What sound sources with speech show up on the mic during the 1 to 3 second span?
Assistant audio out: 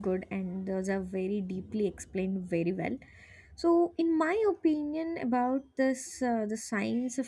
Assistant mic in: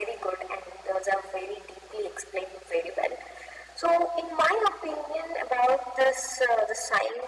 echo only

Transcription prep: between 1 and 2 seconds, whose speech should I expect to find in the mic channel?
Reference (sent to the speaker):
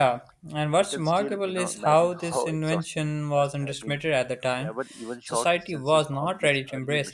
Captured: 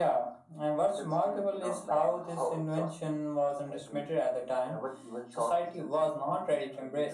echo only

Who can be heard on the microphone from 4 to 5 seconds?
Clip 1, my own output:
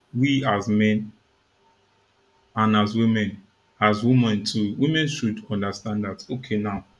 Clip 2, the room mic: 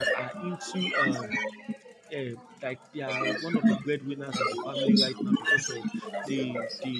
both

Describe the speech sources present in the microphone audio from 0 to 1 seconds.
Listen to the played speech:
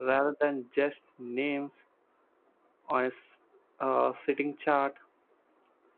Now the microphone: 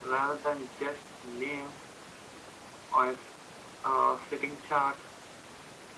echo only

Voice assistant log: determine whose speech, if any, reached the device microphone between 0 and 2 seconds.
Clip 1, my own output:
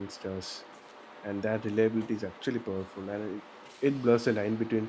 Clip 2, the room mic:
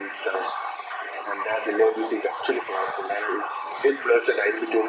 echo only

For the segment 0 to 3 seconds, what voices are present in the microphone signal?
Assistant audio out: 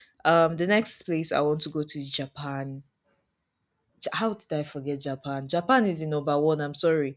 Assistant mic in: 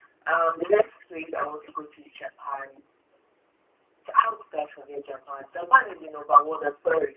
echo only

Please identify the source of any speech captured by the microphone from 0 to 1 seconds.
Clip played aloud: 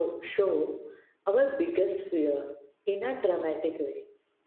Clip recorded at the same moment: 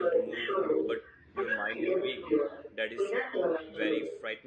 both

